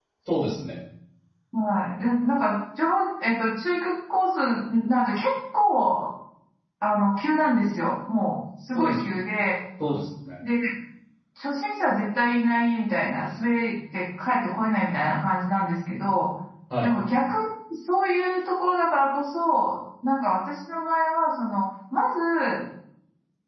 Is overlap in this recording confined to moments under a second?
Yes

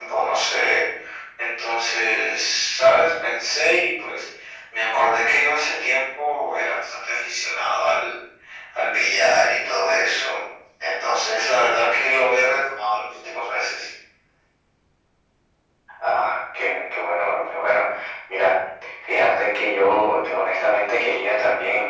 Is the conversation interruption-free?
Yes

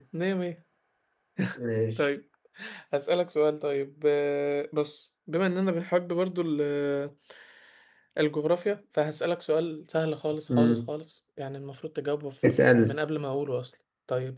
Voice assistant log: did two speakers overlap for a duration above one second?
No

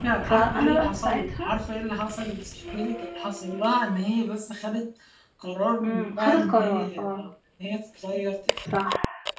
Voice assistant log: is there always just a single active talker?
No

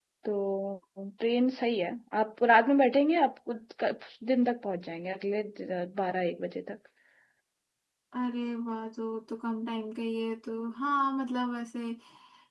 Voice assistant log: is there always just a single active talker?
Yes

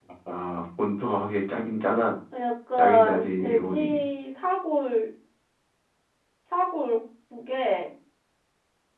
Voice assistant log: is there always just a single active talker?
No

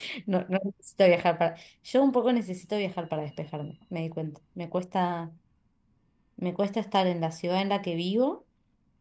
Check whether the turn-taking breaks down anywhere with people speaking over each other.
No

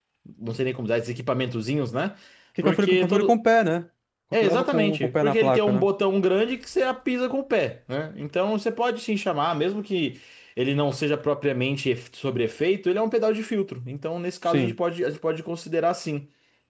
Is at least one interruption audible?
Yes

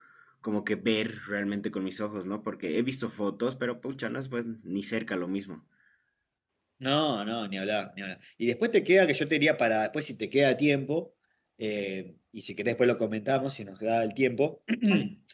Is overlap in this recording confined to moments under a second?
Yes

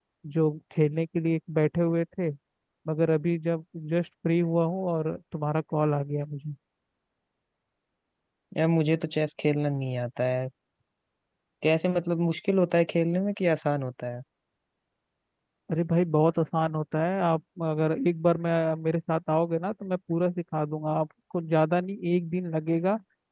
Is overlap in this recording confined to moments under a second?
Yes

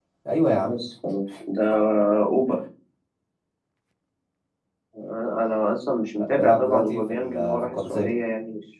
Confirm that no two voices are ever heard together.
No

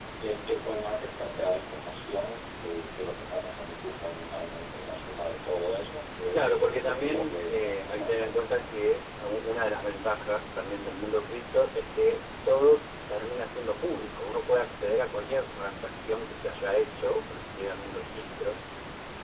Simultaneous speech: Yes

